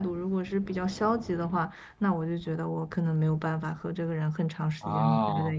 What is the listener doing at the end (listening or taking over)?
listening